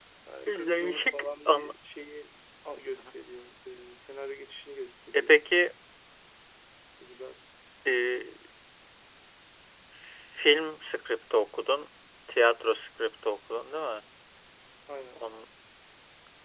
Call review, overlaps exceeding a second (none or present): present